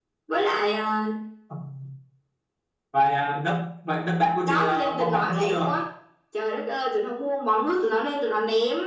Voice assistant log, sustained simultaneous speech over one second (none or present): present